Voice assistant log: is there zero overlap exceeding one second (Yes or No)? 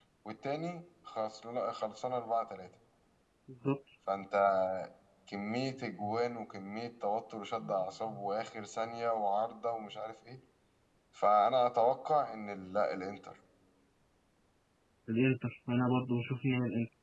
Yes